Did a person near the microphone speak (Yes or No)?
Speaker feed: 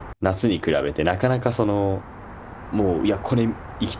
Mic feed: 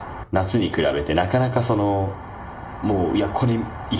No